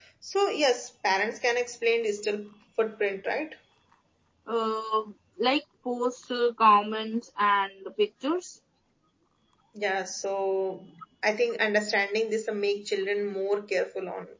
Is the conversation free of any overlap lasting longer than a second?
Yes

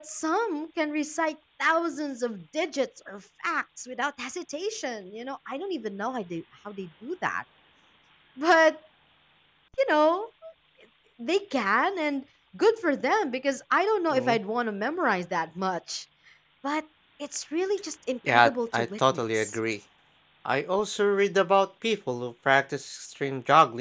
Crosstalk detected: Yes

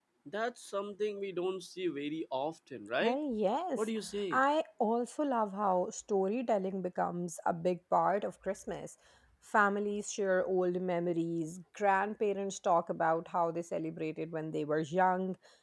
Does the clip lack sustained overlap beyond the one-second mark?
Yes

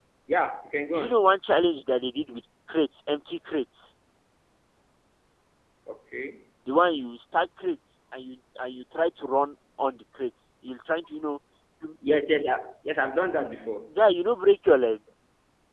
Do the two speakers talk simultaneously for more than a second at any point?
No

